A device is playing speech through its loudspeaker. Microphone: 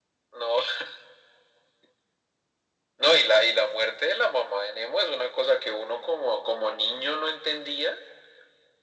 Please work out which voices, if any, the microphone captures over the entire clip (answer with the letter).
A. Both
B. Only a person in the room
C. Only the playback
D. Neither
C